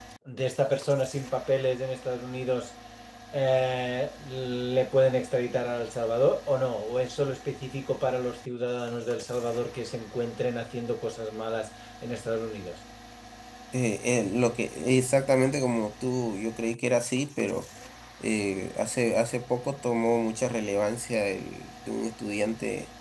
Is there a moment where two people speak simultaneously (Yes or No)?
No